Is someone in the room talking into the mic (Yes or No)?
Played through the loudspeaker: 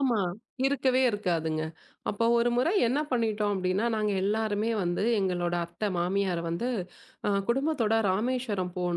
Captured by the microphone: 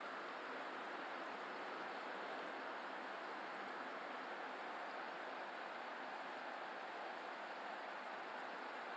No